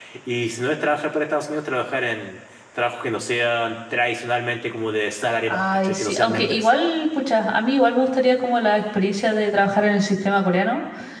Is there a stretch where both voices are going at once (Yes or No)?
Yes